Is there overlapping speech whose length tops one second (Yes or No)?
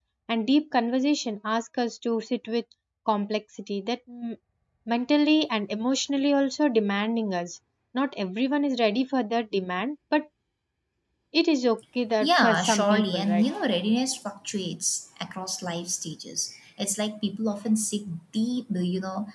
Yes